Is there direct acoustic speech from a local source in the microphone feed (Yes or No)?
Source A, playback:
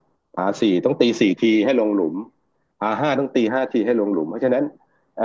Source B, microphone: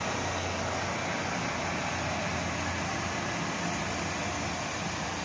No